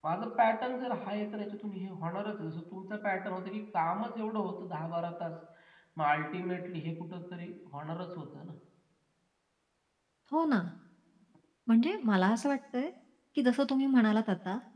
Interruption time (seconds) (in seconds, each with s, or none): none